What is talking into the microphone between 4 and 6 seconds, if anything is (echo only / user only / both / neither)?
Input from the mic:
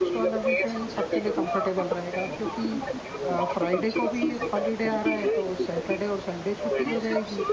both